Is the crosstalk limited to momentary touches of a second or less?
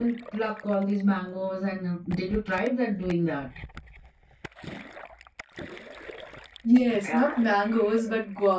Yes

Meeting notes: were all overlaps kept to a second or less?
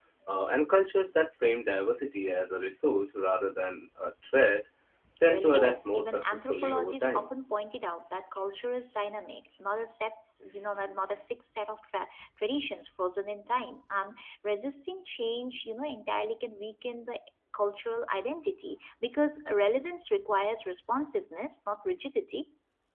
No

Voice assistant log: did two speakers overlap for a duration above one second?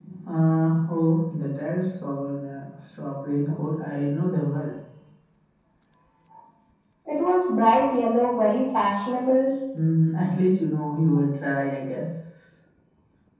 No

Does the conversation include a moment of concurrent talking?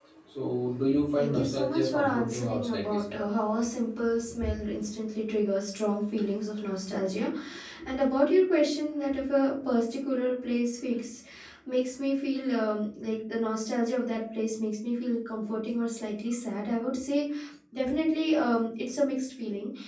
Yes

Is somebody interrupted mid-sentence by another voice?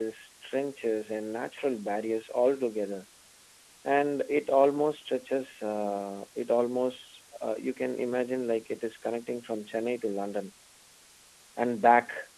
No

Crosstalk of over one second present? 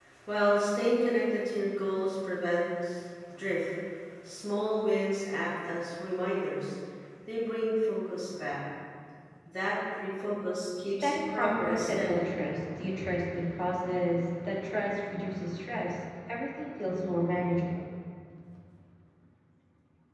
Yes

